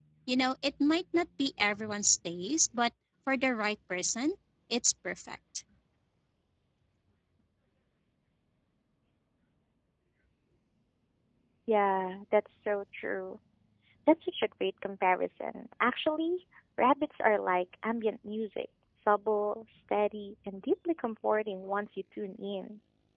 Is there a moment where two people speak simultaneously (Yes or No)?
No